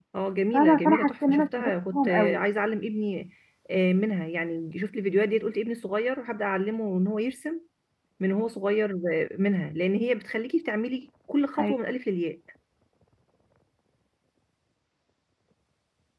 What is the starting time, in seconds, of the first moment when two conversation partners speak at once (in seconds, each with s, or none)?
0.5 s